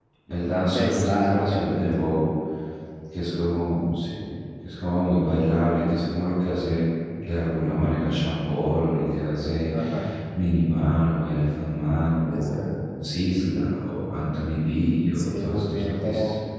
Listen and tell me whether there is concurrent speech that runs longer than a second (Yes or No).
Yes